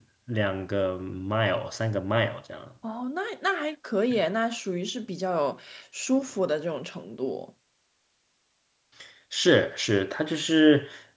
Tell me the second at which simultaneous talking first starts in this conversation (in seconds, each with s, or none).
none